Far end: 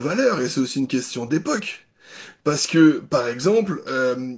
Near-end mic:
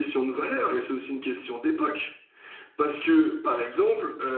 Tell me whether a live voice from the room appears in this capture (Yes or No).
No